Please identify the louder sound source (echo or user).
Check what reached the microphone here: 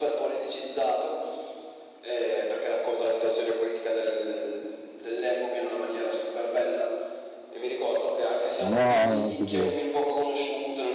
user